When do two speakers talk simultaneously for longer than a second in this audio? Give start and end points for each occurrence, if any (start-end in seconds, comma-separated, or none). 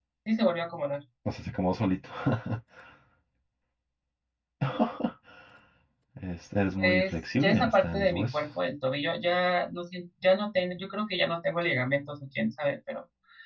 6.8-8.4